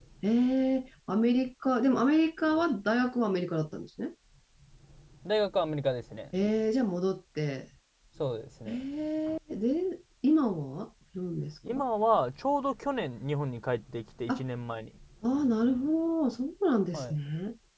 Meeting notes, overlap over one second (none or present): none